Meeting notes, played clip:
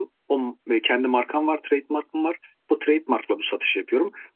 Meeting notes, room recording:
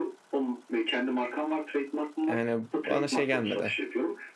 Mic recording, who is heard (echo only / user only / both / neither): both